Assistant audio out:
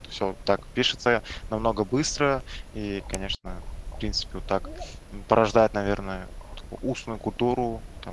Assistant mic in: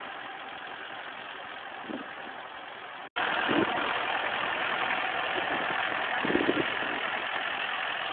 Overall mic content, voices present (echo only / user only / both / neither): neither